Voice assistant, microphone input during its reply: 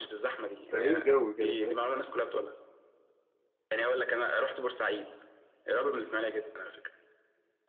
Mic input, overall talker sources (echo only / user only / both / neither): both